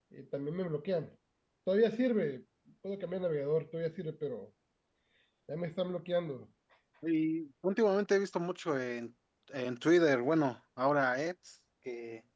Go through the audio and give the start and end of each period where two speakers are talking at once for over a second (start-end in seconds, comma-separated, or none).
none